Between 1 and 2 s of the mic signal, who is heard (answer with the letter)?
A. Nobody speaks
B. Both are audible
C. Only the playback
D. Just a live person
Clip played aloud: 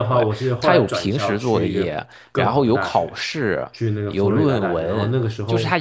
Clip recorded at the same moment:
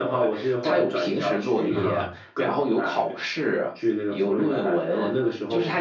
B